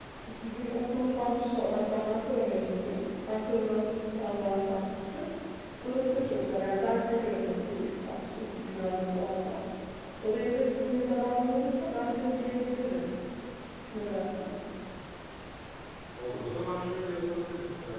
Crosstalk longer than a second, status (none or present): none